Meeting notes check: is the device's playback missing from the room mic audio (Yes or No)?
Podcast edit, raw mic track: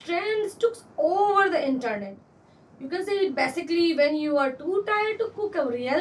Yes